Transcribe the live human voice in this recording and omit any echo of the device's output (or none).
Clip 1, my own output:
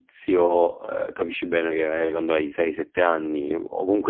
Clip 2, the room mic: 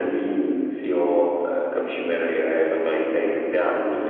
none